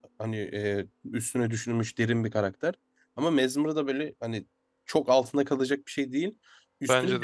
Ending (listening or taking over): listening